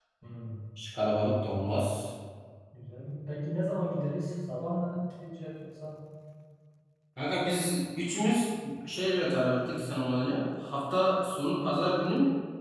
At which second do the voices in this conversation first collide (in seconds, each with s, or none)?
none